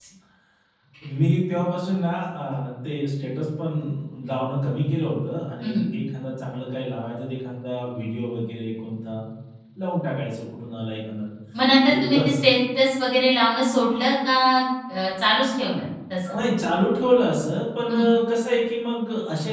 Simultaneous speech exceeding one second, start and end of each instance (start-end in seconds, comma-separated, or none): none